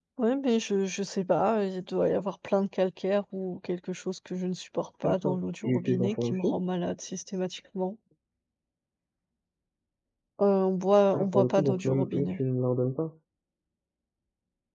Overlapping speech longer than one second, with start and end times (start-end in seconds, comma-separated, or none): 5.0-6.6, 11.1-12.4